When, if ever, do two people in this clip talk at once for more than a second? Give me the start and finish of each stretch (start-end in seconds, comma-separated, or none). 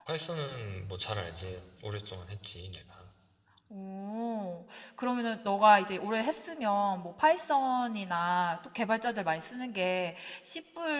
none